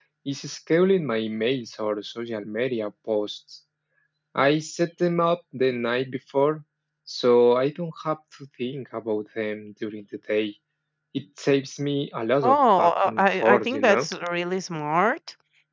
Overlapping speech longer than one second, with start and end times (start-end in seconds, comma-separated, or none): 12.4-14.1